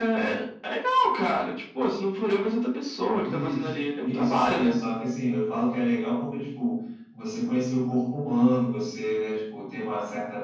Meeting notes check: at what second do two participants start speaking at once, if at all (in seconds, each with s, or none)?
3.2 s